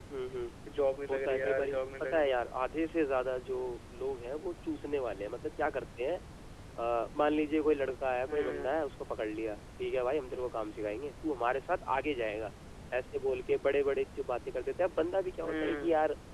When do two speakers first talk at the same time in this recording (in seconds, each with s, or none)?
1.1 s